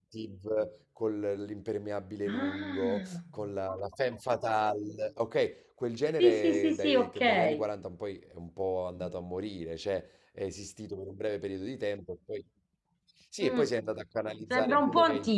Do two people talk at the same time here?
Yes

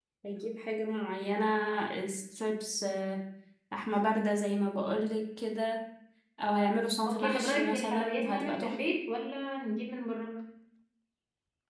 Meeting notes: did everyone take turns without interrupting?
No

